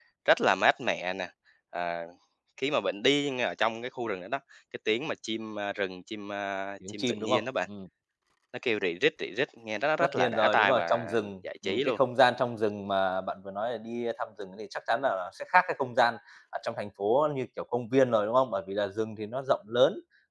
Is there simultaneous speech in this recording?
Yes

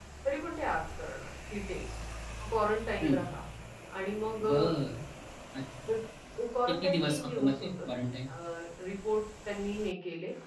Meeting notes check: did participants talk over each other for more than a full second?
Yes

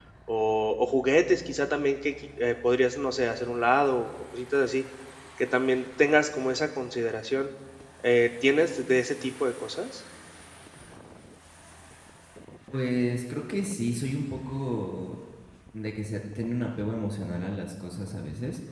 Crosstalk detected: No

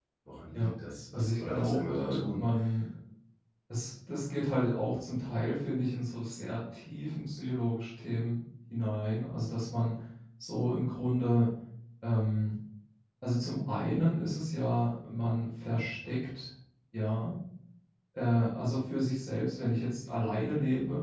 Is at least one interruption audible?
Yes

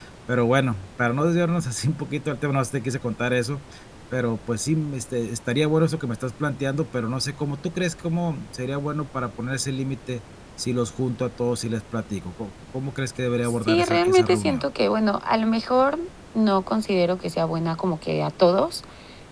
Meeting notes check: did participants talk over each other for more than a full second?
Yes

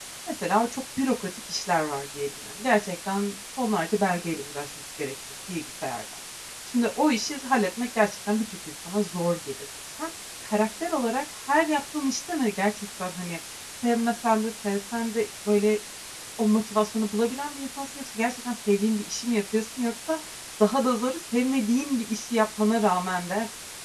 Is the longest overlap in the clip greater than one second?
No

